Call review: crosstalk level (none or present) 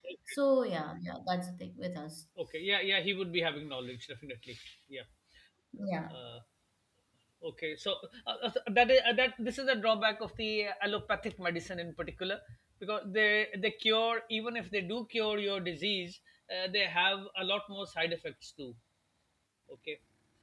none